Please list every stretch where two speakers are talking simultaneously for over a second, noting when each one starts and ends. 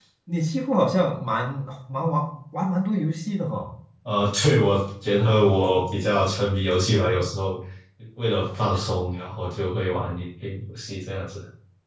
none

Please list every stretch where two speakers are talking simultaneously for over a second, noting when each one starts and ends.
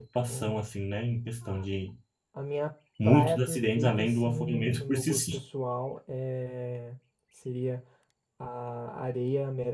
3.0-5.4

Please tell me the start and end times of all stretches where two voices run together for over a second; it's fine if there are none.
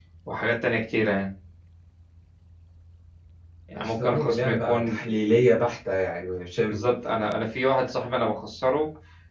3.8-5.0

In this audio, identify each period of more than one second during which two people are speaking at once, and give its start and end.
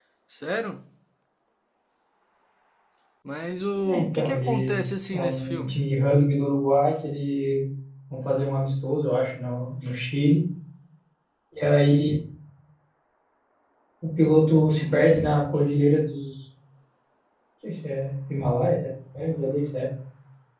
3.8-5.8

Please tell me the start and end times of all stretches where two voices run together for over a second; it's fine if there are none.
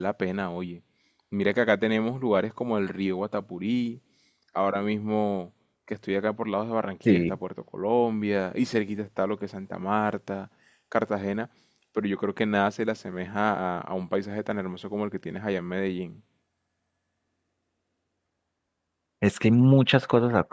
none

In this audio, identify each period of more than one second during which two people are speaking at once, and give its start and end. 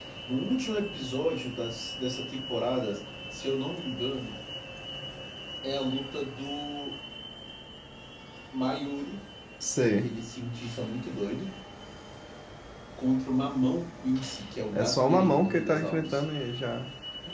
14.7-16.2

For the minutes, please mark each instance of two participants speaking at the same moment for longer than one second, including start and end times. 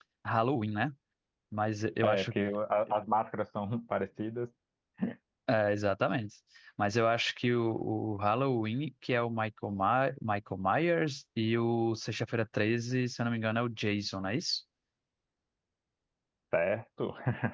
none

